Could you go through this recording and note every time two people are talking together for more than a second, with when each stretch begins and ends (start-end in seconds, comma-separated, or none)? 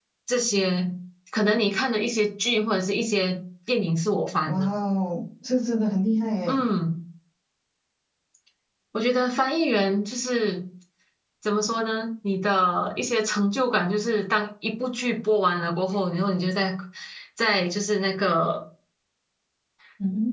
none